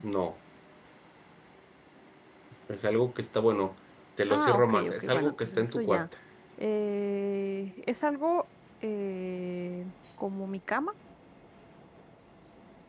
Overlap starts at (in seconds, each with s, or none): 4.3 s